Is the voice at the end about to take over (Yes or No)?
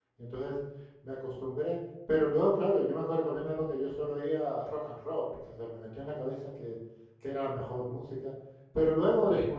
No